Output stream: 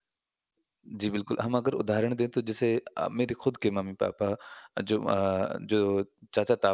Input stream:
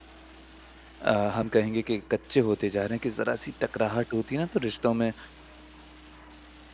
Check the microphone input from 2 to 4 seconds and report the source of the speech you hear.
user only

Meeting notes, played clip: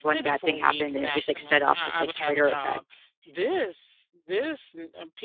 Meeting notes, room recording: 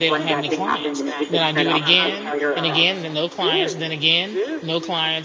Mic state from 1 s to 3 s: both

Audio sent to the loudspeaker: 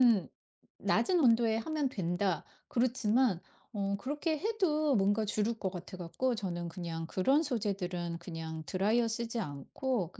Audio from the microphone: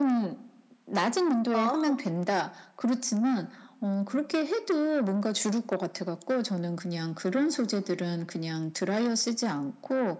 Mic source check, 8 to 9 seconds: echo only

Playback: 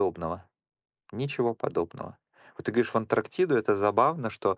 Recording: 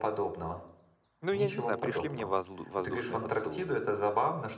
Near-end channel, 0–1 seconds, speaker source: echo only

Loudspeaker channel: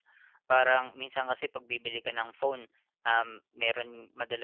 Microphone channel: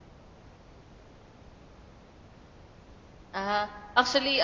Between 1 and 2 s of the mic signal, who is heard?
neither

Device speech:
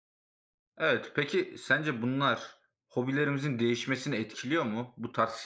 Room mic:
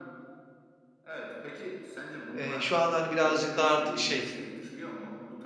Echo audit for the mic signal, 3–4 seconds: both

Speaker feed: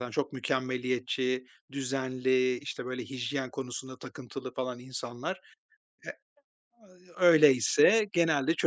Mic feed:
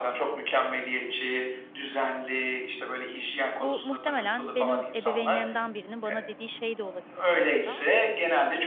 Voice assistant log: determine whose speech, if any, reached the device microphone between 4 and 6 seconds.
both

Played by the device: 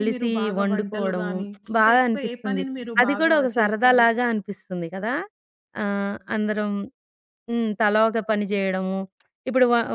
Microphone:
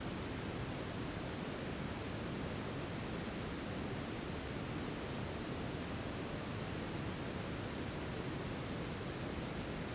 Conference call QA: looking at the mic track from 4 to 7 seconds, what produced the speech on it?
neither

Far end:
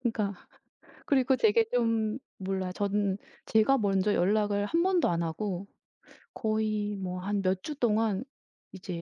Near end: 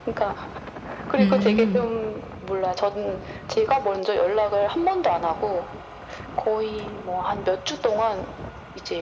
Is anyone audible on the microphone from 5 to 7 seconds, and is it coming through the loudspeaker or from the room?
echo only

